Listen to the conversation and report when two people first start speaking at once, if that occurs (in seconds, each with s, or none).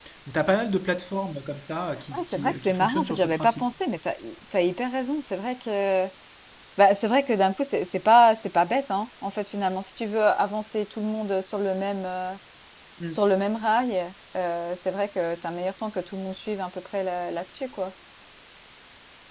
2.1 s